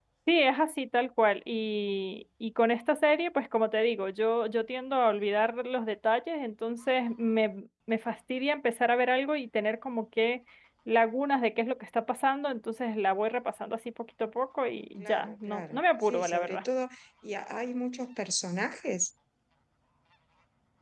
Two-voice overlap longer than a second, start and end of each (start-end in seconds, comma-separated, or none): 15.0-16.6